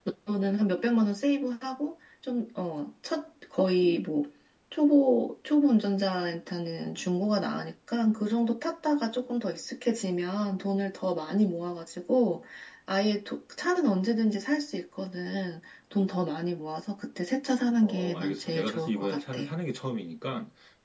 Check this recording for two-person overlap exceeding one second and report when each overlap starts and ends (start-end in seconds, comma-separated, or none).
17.8-19.4